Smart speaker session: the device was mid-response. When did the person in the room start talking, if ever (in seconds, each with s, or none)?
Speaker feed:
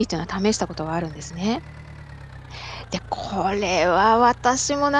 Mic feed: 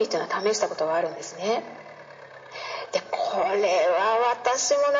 none